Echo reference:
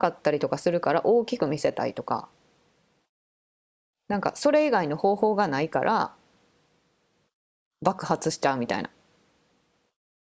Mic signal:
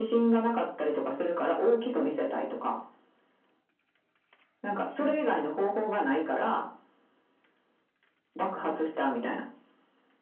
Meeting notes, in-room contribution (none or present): present